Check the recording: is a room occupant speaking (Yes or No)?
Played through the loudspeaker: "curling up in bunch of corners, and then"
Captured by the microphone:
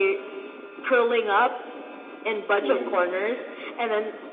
Yes